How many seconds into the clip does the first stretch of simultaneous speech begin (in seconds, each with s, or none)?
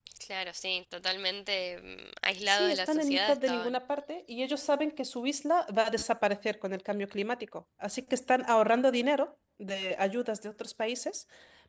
2.5 s